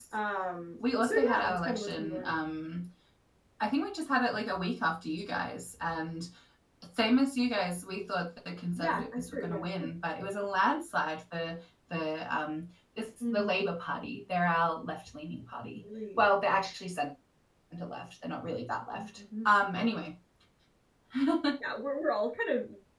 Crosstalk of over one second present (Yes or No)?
Yes